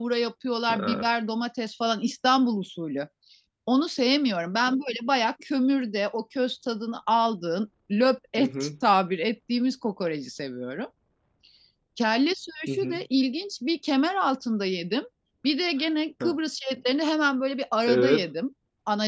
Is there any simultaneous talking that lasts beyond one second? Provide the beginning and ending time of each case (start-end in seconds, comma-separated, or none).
none